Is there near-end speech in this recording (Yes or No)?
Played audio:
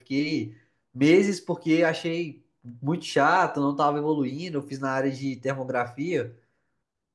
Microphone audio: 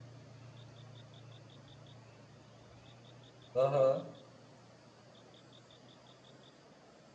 Yes